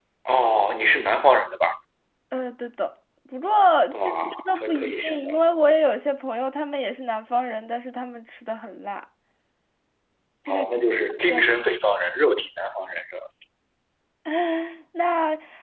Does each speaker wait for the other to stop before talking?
No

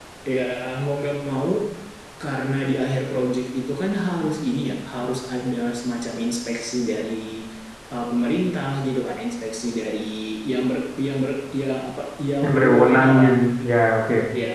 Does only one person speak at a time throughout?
No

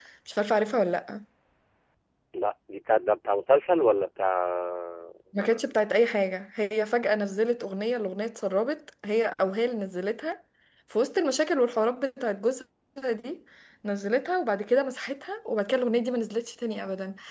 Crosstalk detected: No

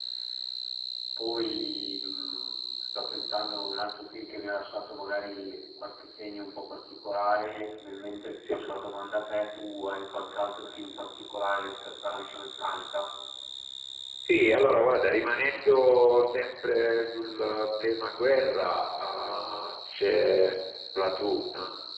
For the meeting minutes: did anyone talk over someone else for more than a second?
No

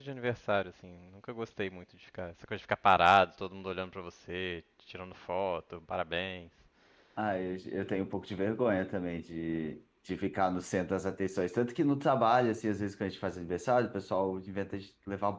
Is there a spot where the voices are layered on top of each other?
No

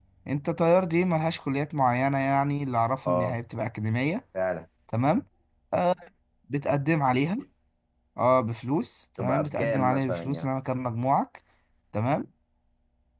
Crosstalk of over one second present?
Yes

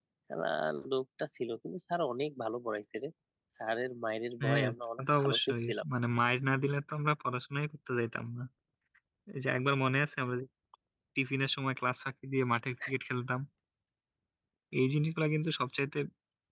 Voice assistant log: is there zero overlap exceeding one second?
No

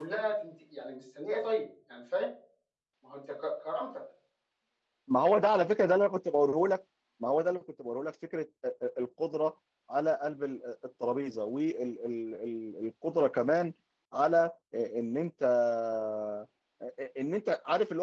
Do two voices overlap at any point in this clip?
No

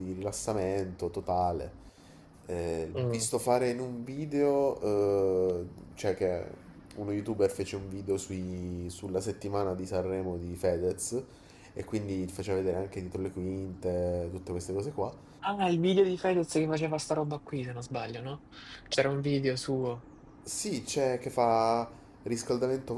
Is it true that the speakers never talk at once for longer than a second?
Yes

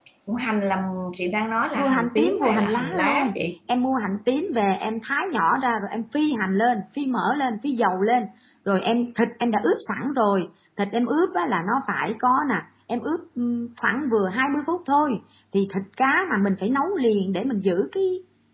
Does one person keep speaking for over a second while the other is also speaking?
Yes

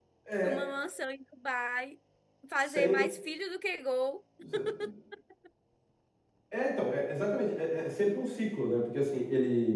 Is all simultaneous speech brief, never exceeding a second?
Yes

